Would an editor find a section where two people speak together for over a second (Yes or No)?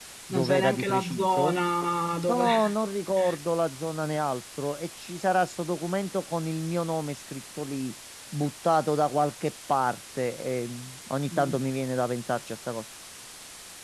Yes